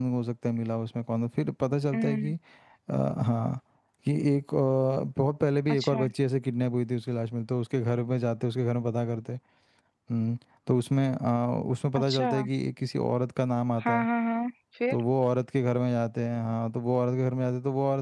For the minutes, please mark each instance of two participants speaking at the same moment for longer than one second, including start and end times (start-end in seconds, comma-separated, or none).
none